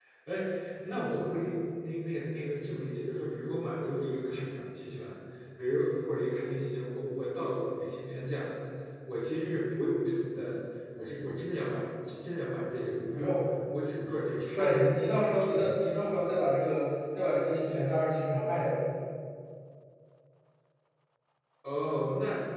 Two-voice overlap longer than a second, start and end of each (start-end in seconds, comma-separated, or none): none